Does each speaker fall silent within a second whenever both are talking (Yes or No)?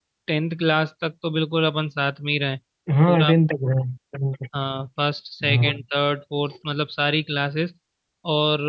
Yes